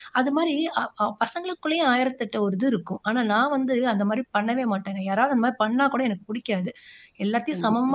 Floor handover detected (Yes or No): No